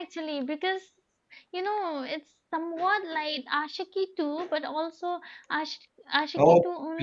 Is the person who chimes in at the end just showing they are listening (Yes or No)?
No